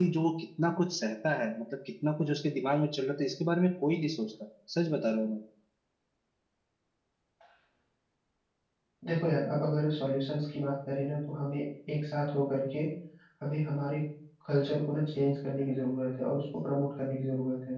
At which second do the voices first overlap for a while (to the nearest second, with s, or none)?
none